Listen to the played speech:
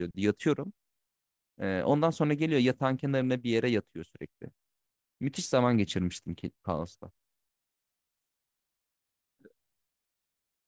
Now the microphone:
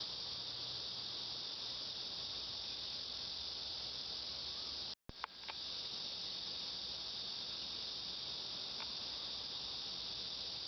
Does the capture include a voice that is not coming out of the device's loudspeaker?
No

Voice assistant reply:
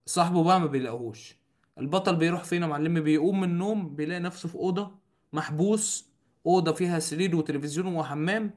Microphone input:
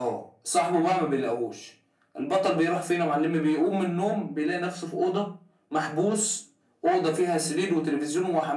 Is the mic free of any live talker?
Yes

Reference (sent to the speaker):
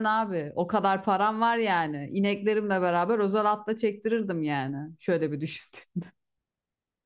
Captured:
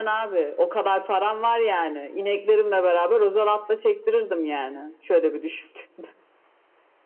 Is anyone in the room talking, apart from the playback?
No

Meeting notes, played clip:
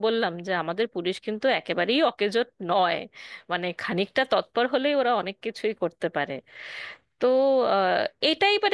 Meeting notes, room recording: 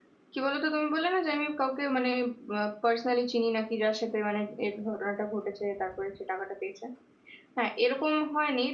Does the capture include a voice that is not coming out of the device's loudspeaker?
Yes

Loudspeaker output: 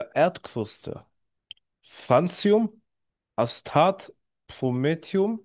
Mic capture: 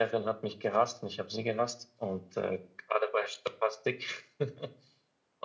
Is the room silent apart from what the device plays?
No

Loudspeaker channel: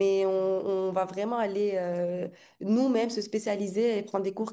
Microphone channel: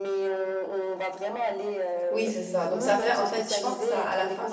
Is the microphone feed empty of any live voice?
No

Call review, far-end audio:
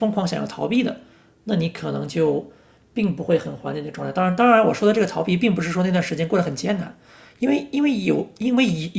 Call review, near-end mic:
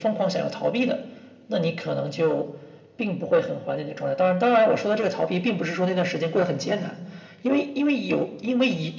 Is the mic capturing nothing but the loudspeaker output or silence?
Yes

